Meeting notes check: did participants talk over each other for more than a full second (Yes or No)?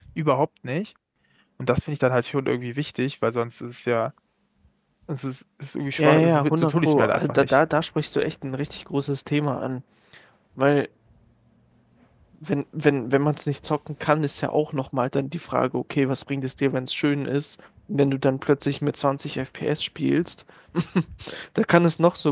Yes